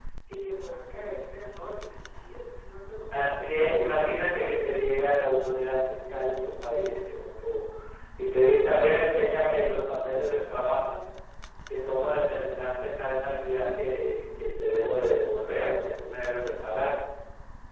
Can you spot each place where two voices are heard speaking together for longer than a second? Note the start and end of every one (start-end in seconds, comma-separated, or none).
3.1-4.7